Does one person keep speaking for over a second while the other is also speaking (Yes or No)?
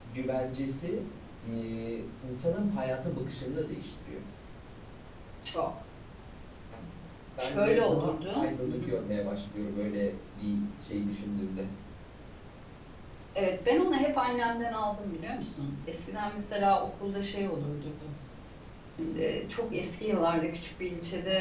Yes